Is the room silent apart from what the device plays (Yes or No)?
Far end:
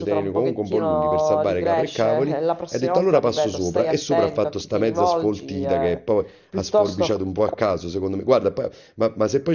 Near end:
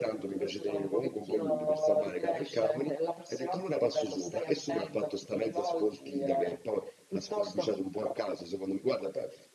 Yes